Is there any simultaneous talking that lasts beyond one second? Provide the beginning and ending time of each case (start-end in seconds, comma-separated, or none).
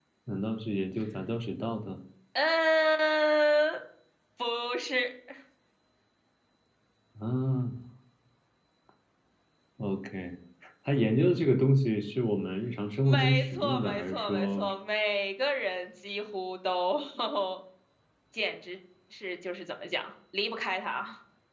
13.0-14.6